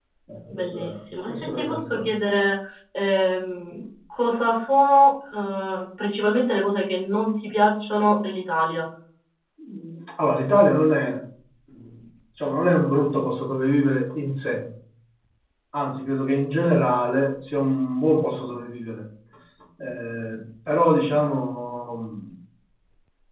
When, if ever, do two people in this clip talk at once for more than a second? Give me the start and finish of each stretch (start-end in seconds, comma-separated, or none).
0.5-2.1